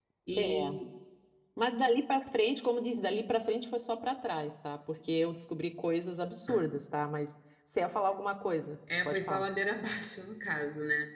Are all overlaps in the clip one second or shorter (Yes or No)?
Yes